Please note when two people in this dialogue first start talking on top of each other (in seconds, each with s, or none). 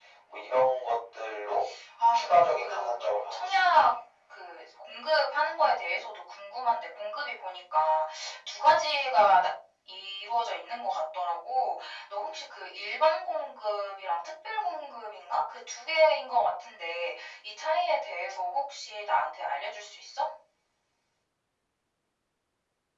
2.1 s